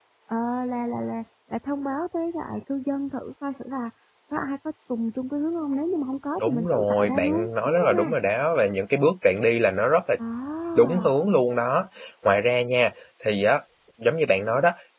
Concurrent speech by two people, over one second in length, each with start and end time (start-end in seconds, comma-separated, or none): 6.4-8.1